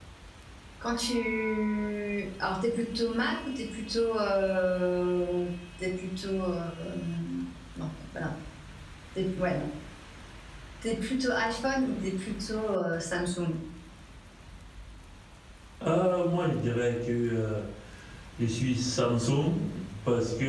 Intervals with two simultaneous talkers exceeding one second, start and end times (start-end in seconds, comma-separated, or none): none